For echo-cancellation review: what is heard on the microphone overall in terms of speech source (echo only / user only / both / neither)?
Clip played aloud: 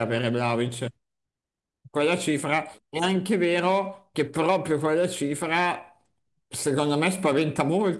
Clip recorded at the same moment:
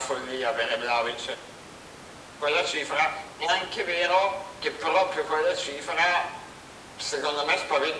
echo only